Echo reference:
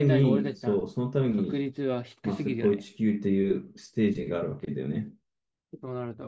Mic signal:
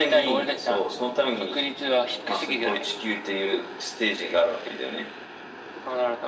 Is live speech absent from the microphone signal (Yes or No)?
Yes